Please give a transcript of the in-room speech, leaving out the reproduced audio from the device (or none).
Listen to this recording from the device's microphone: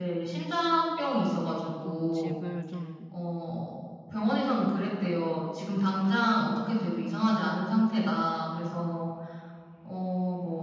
좀 집을 좀